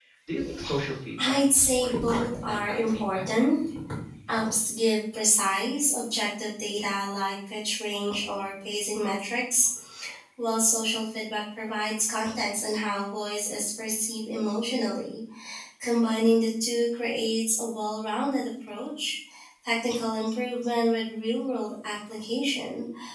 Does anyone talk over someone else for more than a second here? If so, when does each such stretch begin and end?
1.2-3.2

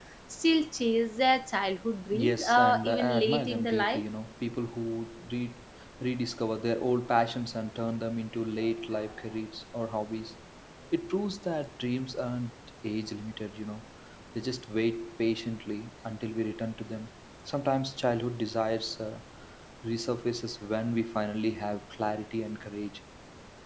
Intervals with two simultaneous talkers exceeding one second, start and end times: 2.1-4.0

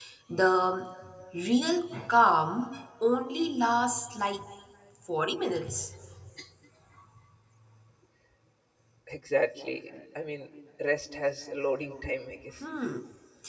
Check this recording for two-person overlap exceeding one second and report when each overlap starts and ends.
none

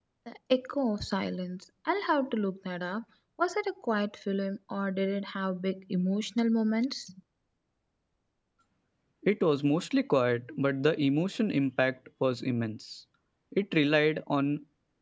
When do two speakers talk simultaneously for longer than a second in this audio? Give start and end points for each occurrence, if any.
none

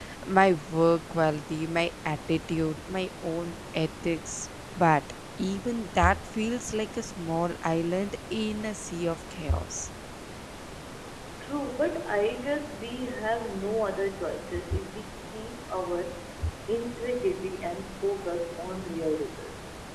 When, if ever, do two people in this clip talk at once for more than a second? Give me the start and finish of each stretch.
none

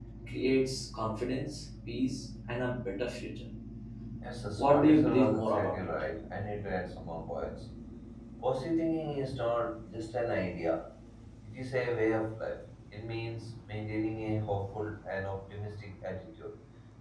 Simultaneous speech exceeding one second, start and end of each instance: 4.6-5.8

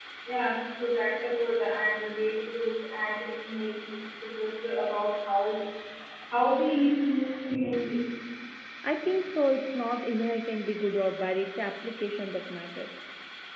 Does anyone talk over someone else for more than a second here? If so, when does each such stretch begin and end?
none

